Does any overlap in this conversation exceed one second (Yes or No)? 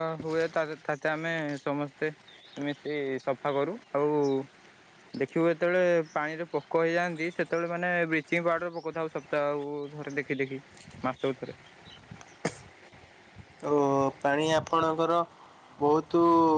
No